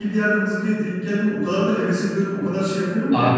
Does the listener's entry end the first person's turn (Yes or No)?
Yes